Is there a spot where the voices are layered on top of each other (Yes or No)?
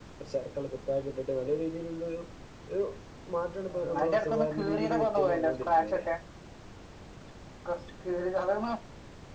Yes